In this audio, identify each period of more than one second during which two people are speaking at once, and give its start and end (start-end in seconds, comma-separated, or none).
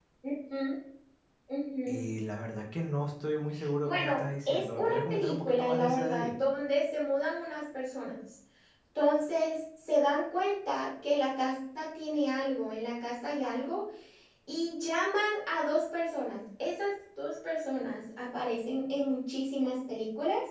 3.8-6.4